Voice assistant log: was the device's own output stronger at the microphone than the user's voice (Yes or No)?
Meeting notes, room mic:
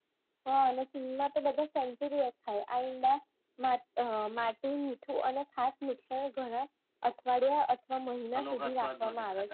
Yes